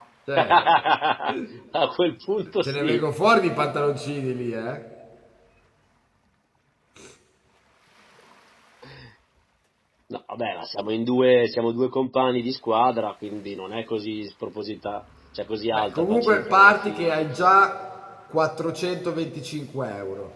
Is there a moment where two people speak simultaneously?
Yes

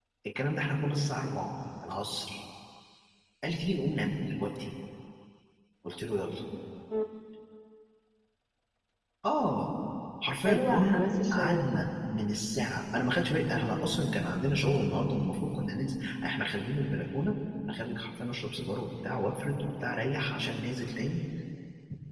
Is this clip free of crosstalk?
No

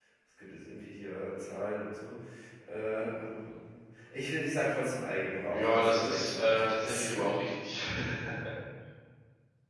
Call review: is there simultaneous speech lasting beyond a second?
Yes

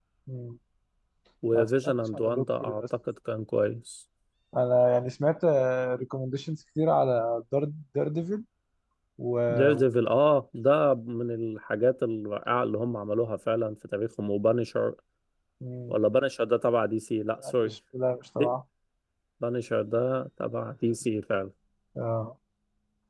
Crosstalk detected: Yes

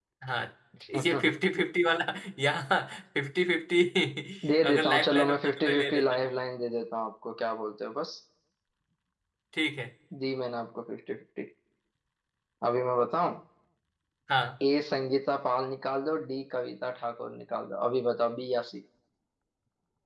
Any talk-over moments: Yes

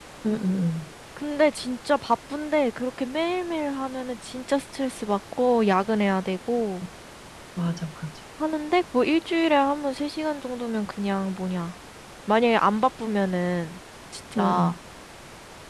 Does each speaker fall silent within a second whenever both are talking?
Yes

